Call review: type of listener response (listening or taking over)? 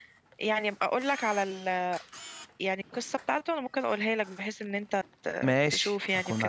taking over